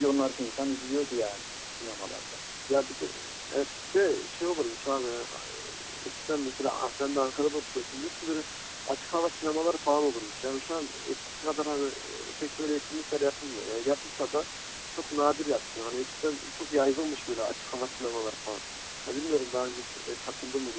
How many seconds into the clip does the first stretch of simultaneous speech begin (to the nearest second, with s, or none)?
none